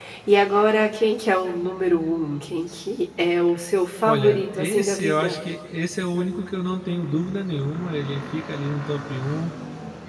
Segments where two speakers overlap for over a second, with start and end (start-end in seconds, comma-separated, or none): 4.1-5.4